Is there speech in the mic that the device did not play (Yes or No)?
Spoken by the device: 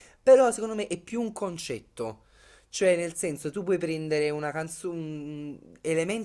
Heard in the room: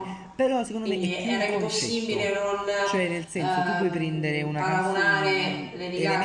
Yes